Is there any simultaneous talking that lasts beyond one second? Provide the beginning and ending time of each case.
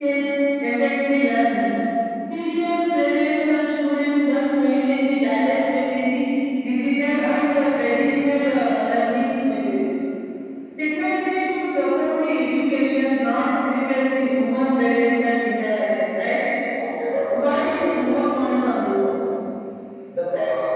17.3-19.0

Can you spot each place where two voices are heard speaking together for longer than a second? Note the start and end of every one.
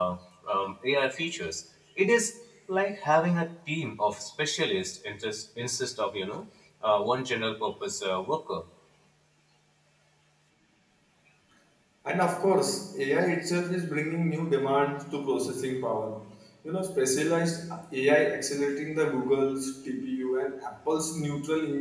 none

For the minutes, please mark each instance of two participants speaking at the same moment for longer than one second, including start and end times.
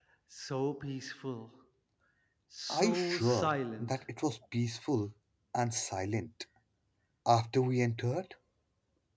2.7-3.9

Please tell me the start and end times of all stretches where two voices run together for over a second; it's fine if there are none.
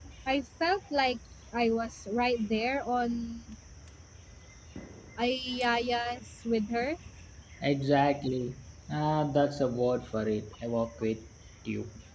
none

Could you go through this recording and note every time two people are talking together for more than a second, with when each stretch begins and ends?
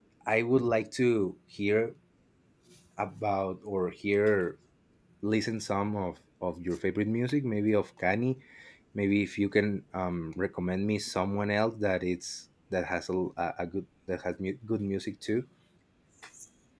none

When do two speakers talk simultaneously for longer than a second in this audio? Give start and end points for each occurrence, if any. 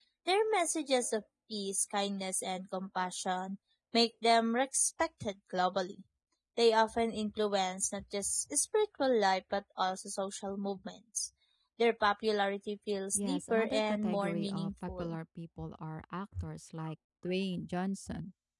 13.2-15.2

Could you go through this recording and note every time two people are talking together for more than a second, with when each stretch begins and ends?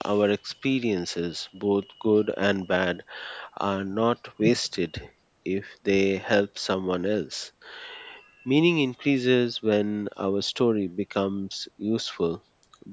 none

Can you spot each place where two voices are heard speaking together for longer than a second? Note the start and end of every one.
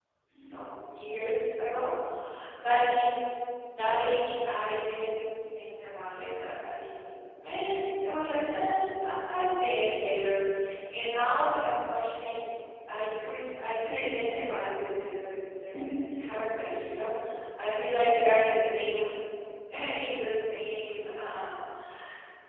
none

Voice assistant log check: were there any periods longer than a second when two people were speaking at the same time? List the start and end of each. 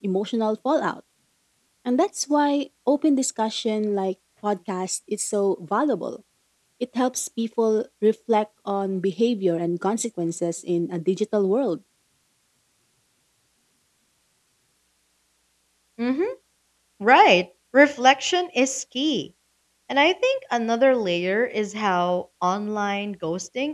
none

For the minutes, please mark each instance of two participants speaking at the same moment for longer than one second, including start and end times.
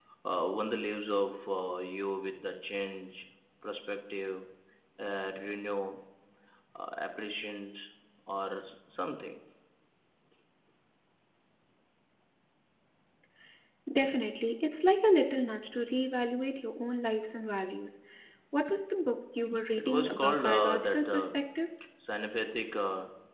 19.8-21.4

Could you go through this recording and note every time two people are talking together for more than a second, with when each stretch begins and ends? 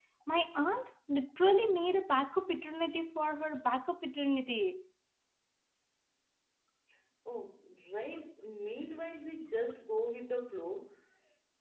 none

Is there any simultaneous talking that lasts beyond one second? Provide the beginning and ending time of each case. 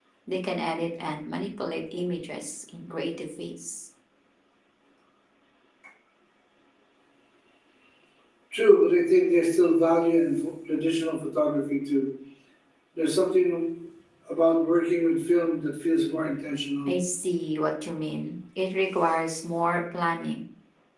none

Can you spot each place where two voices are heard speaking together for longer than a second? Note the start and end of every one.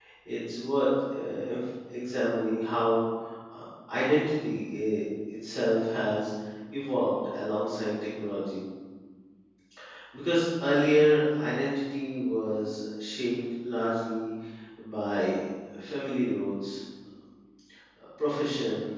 none

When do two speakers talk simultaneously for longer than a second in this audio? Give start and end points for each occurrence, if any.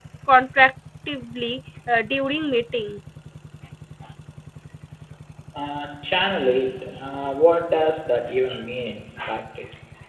none

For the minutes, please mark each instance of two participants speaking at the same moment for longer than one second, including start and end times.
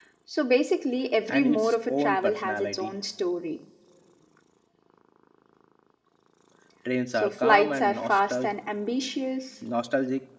1.3-2.9, 7.2-8.5

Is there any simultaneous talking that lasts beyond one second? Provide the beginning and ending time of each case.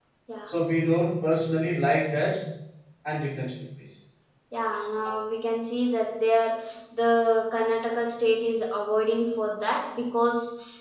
none

